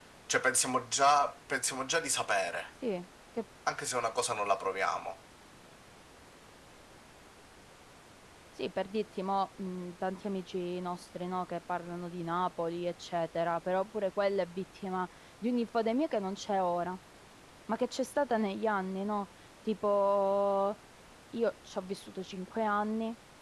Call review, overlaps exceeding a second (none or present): none